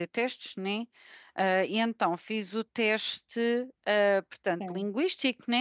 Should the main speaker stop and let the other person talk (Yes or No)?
No